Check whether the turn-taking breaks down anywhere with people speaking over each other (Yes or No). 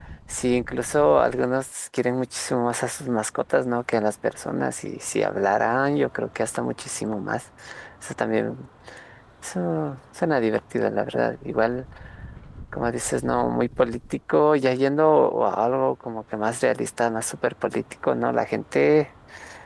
No